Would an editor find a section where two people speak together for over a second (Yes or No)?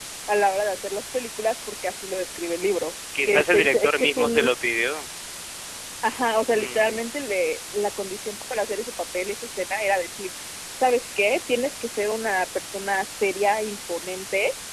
Yes